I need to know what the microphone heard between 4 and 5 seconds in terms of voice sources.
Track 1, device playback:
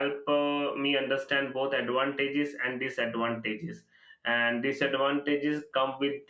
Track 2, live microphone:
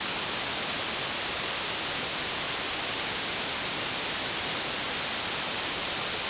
neither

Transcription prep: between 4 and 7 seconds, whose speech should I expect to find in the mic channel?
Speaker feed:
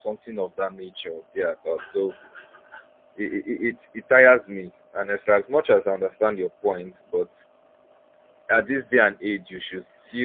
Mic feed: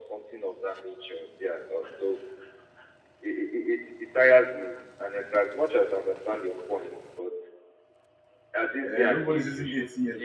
echo only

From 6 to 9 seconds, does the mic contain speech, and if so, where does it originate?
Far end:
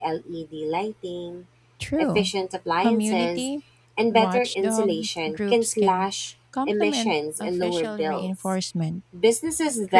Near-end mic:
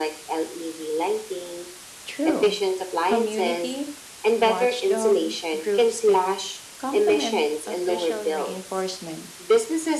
echo only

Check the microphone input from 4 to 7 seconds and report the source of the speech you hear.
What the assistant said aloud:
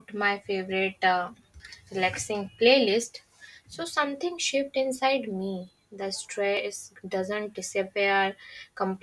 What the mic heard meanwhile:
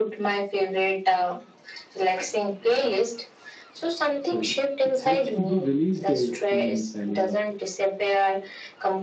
both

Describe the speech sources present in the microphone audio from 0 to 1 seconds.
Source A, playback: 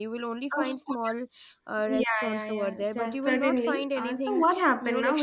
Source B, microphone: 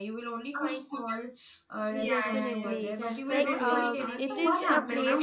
echo only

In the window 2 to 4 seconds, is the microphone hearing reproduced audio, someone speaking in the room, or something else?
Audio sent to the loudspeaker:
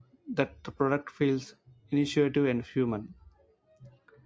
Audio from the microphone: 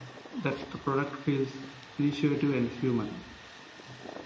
echo only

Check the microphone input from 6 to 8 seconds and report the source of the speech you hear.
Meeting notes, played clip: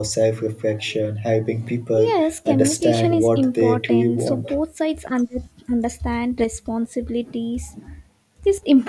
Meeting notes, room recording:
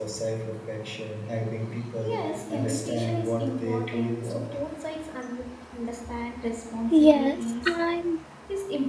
both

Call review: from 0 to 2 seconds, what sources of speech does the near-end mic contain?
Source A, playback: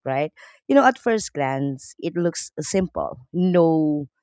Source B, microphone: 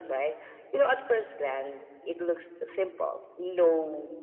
echo only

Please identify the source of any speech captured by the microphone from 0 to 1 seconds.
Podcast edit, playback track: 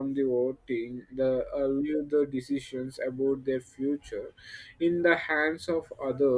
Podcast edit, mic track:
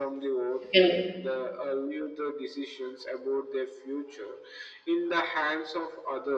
both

